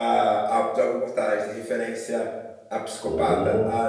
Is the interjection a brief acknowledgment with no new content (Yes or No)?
Yes